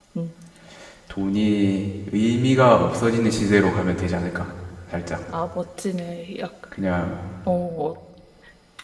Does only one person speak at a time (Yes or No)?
Yes